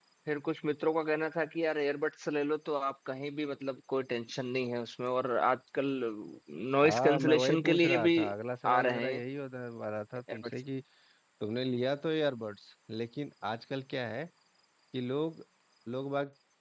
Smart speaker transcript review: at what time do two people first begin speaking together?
6.8 s

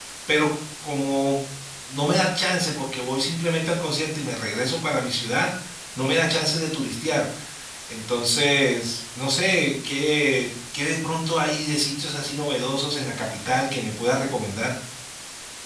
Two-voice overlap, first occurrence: none

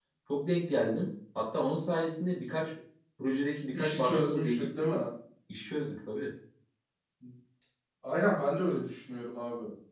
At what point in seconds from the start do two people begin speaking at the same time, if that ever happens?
3.7 s

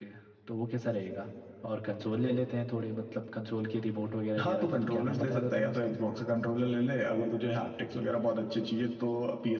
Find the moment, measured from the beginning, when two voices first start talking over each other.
4.4 s

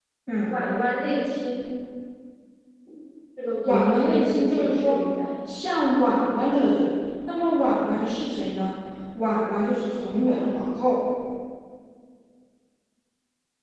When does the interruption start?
3.6 s

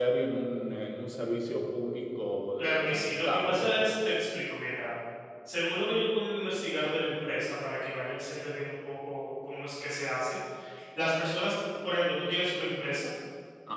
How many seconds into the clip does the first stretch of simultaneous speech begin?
2.6 s

